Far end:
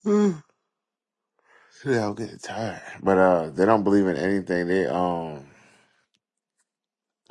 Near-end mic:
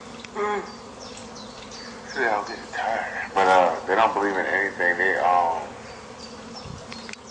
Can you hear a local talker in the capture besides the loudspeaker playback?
No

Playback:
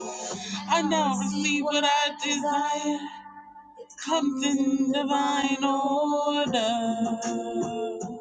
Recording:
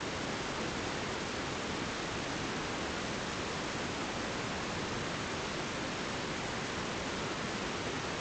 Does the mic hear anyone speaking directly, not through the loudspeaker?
No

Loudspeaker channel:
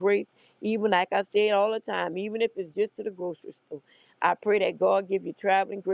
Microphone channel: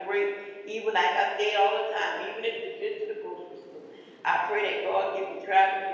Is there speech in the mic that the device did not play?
No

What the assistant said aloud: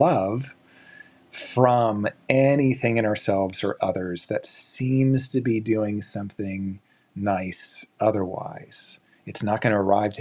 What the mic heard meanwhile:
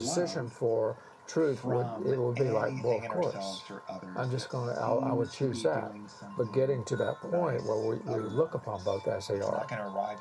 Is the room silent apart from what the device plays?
No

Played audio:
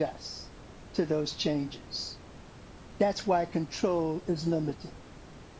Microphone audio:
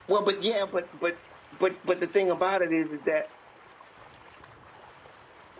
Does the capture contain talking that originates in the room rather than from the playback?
Yes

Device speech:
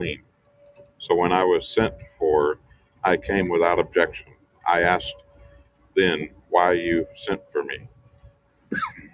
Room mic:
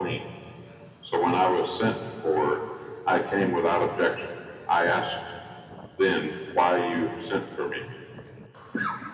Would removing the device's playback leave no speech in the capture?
Yes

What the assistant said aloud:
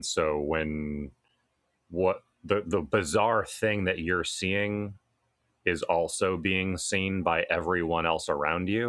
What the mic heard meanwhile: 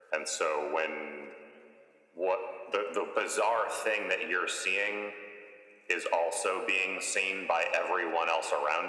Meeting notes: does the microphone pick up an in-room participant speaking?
No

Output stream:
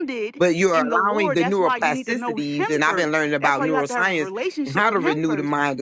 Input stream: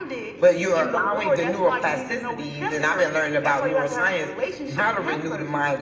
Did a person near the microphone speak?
No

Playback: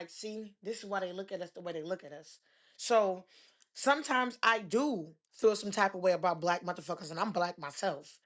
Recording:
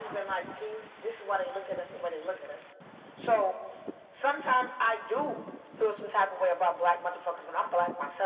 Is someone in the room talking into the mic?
No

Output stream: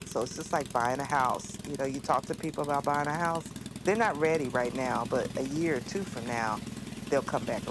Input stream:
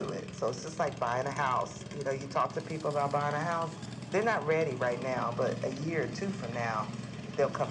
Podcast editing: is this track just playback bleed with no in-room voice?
Yes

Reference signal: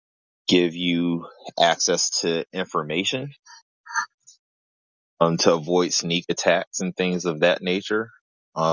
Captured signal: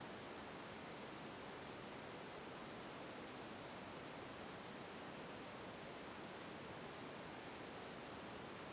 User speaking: No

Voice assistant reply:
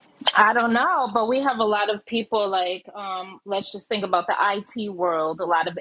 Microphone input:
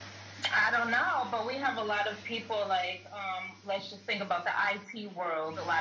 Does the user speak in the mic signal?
No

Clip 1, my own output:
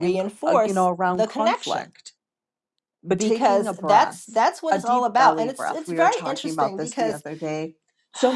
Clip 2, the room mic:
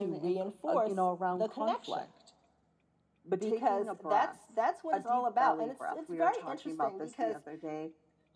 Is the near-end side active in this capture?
No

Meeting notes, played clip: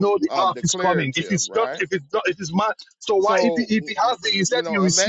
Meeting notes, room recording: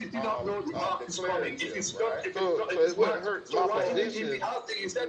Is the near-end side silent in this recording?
No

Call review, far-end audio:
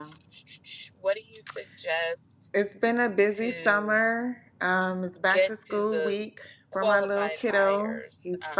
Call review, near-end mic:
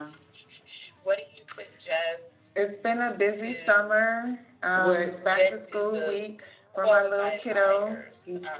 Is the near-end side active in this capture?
Yes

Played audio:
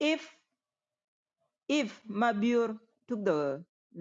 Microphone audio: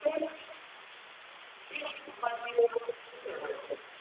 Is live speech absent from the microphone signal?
Yes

